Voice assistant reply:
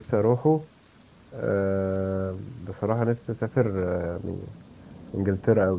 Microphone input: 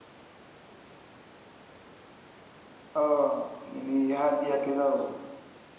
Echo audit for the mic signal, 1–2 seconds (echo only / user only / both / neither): neither